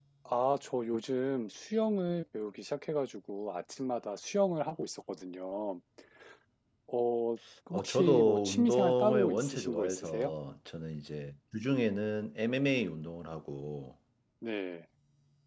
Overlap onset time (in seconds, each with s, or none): 7.7 s